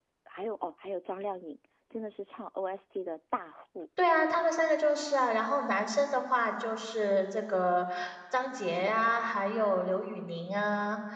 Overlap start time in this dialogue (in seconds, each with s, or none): none